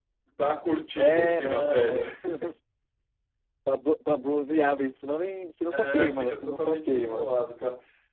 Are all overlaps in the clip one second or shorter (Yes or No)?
No